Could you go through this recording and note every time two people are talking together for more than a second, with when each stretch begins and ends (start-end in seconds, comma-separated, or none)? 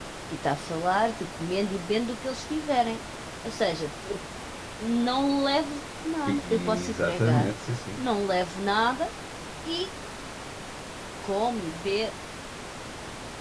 6.3-7.5